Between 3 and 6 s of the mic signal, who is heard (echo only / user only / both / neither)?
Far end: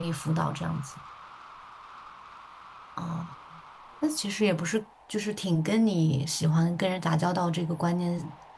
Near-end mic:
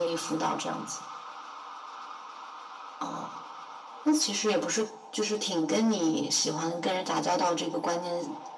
echo only